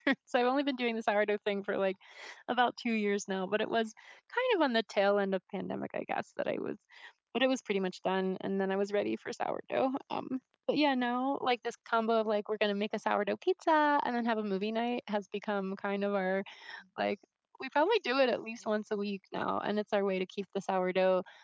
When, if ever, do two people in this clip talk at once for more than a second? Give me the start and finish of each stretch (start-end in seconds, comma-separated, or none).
none